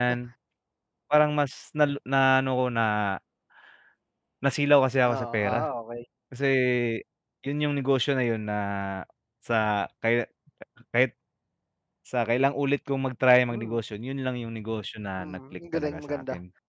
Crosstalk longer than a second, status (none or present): present